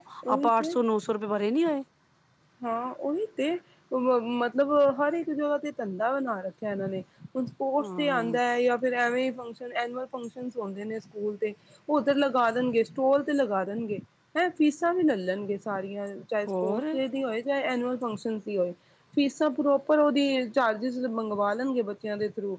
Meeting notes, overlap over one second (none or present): none